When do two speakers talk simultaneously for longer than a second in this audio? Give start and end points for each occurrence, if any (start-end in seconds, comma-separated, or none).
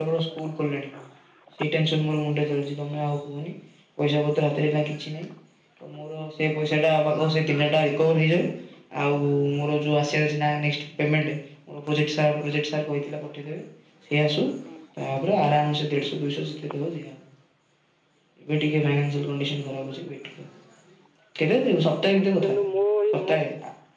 none